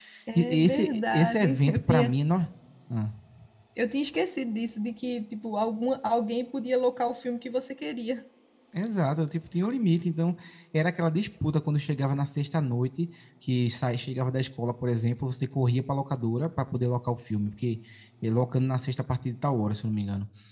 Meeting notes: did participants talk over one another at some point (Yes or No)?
Yes